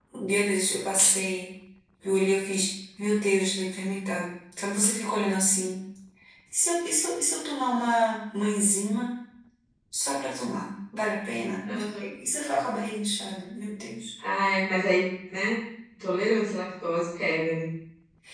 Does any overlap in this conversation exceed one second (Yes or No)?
No